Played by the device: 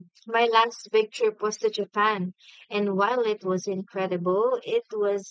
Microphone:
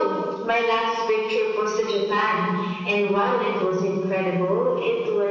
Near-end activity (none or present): none